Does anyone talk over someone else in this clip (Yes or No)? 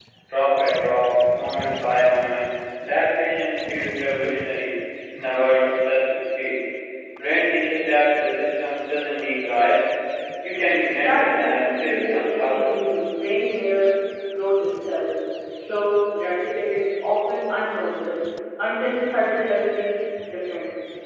Yes